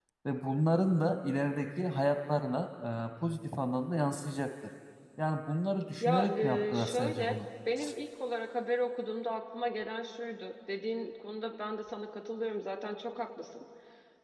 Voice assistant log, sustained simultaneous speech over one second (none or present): present